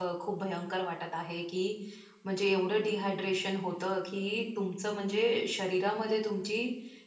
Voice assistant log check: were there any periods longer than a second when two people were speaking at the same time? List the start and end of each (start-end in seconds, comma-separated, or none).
none